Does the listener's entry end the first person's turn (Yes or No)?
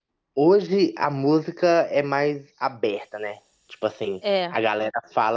No